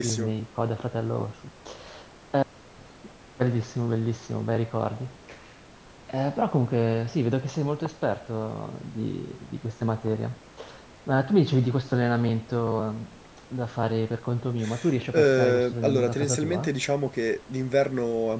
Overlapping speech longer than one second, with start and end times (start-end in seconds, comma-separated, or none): 15.1-16.7